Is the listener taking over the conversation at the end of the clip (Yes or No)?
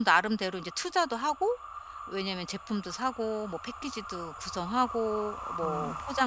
No